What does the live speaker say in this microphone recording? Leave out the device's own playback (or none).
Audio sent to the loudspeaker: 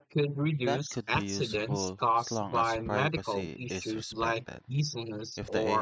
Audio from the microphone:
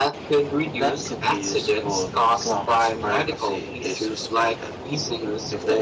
none